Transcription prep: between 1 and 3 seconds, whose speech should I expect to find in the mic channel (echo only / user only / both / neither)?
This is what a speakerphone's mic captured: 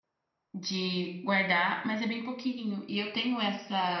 user only